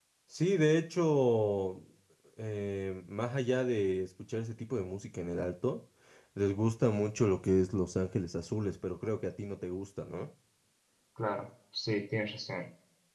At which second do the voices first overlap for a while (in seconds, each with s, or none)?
none